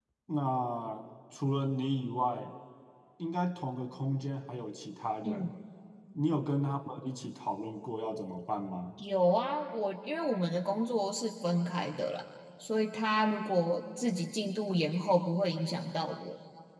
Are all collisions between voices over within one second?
Yes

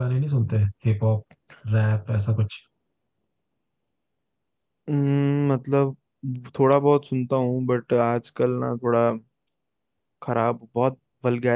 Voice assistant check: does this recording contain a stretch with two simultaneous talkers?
No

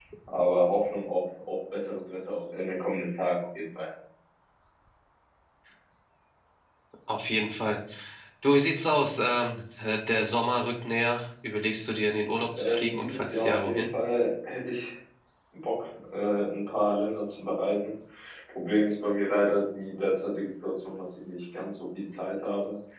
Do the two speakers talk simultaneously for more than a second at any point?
Yes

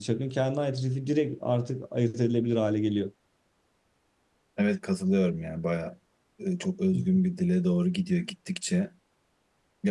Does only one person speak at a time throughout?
Yes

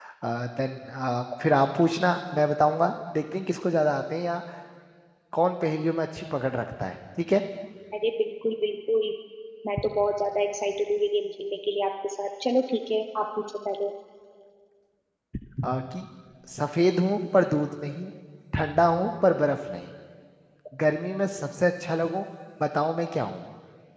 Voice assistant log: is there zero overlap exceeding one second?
Yes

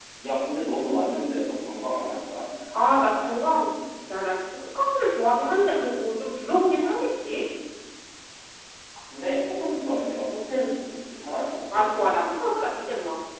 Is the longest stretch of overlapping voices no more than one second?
Yes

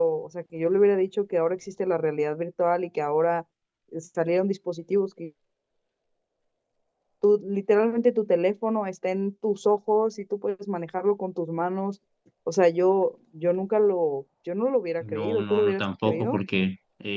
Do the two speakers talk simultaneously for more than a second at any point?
Yes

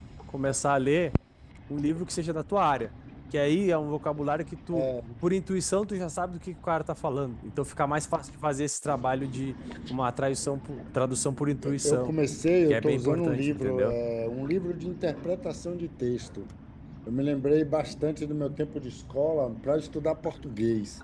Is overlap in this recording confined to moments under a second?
No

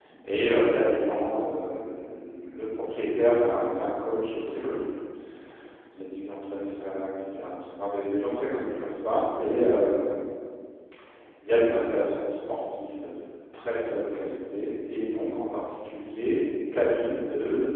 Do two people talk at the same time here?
No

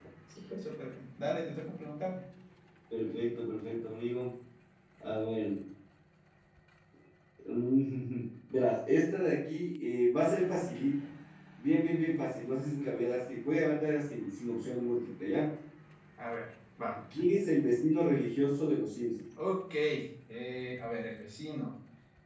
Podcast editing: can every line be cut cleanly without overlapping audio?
Yes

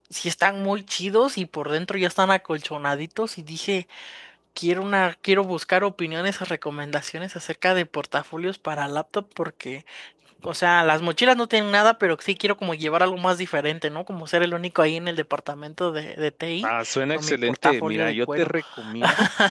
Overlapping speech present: Yes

